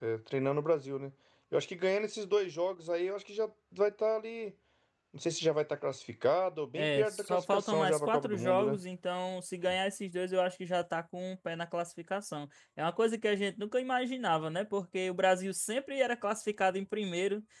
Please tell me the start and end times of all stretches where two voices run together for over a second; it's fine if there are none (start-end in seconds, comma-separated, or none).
6.8-8.8